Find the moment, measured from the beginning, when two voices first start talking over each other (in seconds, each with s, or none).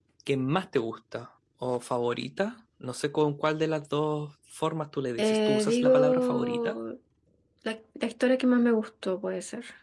5.2 s